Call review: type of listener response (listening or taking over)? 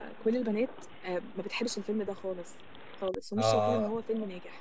listening